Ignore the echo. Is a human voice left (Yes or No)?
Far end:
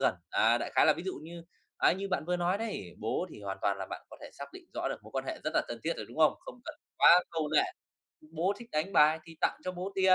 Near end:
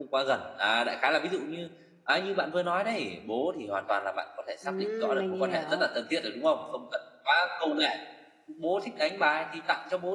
Yes